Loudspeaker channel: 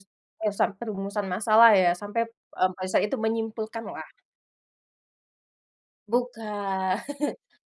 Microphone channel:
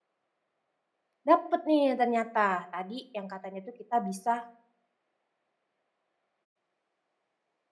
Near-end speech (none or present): present